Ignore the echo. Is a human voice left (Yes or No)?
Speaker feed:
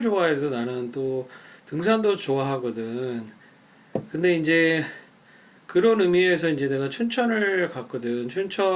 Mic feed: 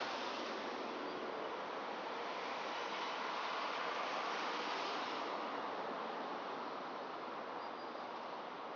No